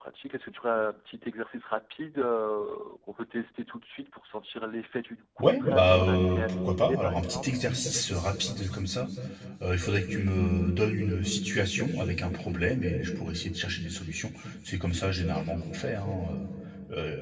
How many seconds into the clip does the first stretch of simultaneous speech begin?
5.4 s

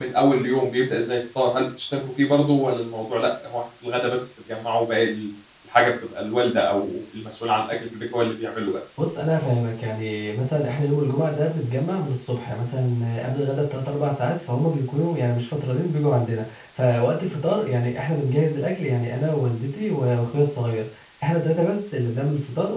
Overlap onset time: none

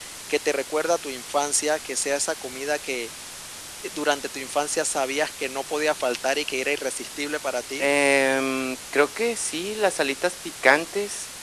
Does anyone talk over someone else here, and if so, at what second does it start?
none

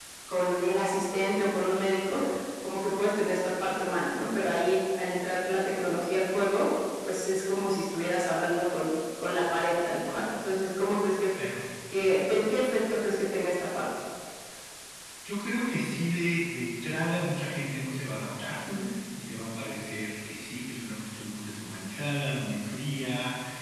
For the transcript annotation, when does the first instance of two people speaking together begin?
none

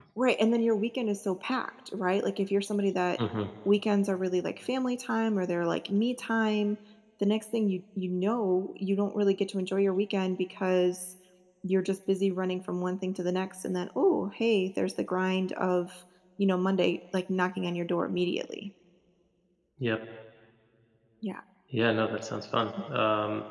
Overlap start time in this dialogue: none

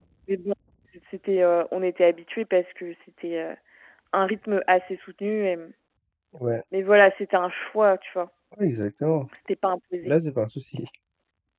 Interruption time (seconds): none

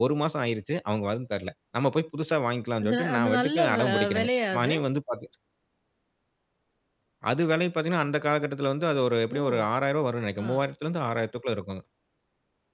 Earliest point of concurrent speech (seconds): 2.8 s

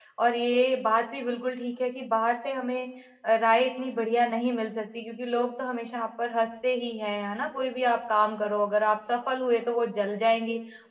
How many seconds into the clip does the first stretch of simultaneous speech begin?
none

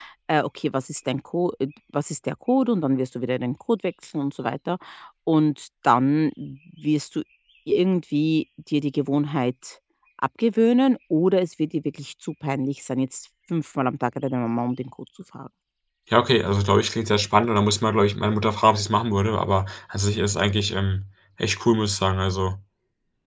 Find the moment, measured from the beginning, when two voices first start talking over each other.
none

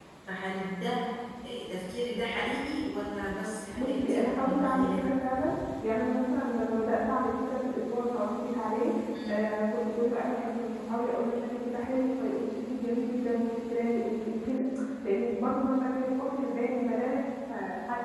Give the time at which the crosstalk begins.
3.7 s

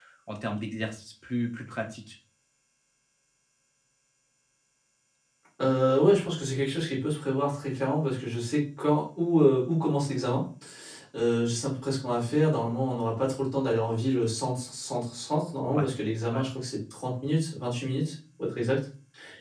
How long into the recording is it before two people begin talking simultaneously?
none

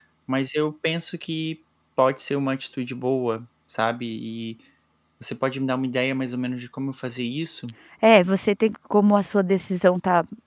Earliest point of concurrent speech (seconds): none

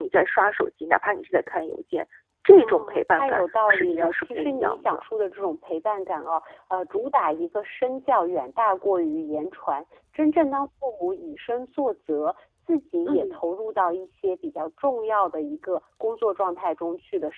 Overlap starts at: 2.5 s

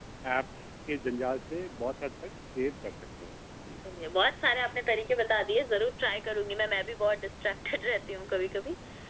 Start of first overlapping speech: none

